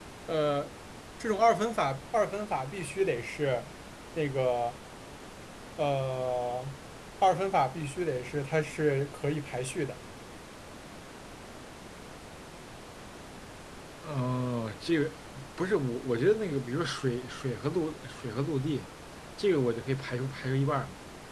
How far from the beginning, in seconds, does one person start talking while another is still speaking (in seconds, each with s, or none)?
none